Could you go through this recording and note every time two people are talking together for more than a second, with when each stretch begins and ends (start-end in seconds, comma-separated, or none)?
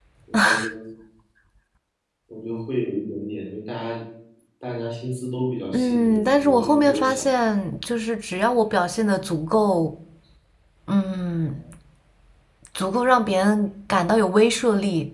5.7-7.3